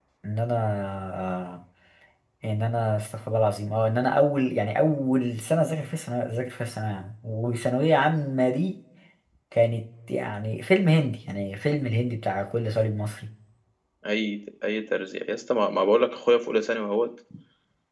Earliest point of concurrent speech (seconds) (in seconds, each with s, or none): none